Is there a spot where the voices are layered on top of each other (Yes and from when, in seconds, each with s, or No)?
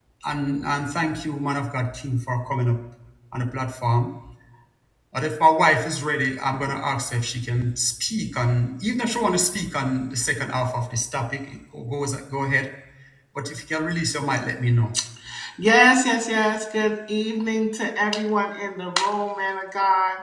No